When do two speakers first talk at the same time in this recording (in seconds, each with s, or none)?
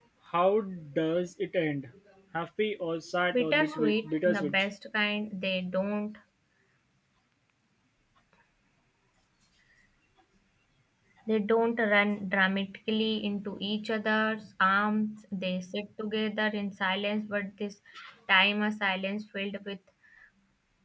3.3 s